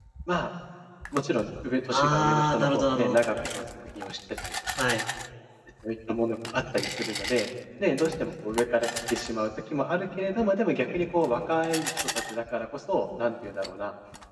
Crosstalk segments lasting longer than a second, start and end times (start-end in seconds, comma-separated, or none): 1.9-3.2